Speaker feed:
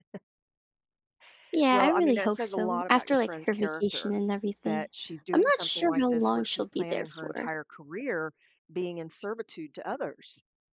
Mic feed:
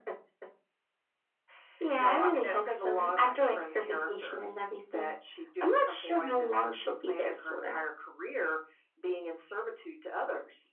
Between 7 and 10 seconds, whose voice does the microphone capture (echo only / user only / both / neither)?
echo only